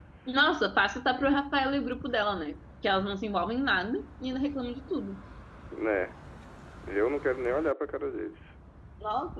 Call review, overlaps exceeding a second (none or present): none